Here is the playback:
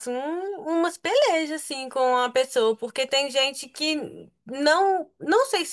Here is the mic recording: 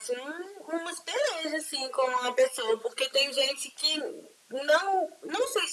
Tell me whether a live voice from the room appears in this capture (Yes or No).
No